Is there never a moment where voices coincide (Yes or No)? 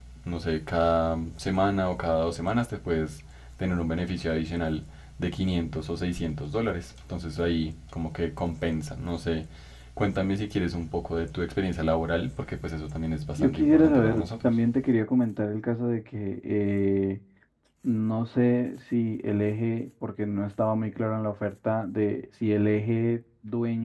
No